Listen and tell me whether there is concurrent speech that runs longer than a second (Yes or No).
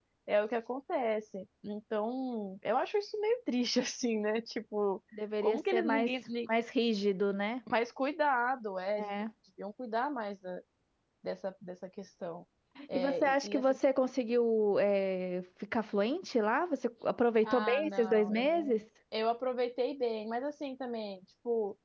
Yes